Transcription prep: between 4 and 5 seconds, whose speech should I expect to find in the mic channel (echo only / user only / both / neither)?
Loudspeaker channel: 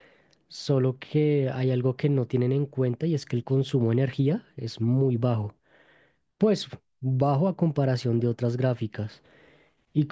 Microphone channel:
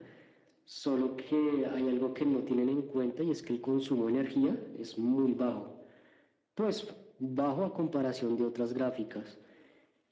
echo only